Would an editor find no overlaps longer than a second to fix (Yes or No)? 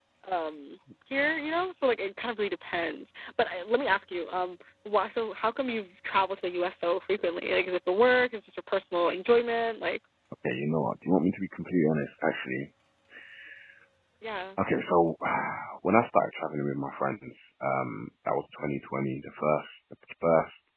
Yes